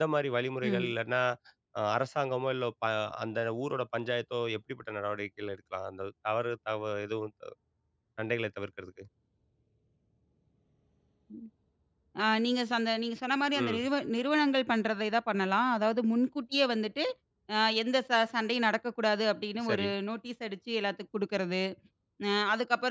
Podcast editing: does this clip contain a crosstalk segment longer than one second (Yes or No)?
No